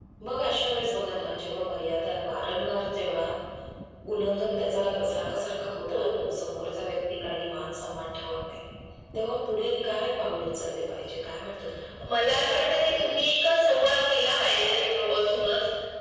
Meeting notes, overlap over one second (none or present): none